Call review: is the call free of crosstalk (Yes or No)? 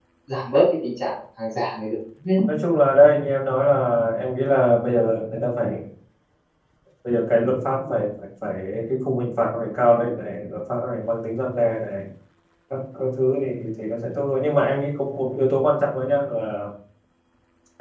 Yes